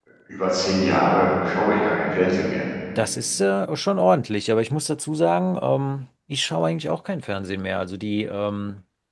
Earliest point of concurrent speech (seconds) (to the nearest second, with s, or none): none